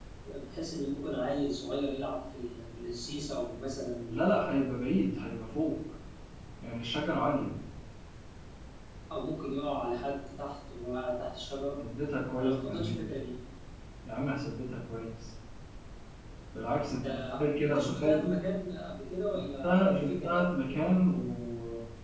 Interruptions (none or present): present